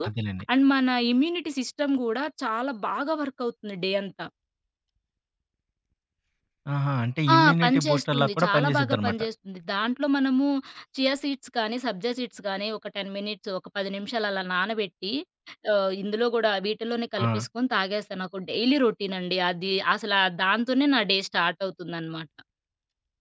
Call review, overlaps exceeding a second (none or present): present